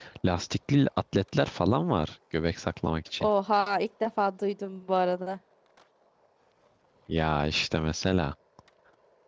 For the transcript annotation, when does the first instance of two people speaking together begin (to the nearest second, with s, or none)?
none